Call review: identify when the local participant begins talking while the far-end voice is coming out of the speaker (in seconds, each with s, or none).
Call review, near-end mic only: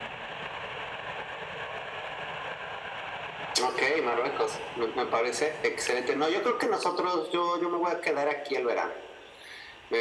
none